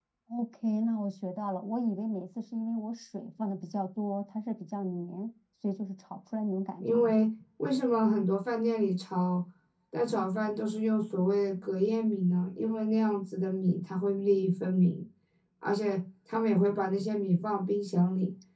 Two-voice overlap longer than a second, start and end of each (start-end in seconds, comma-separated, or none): none